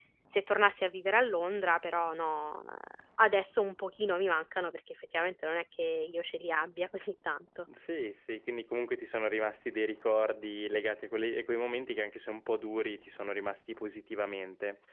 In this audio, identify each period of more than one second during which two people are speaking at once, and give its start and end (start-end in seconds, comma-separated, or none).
none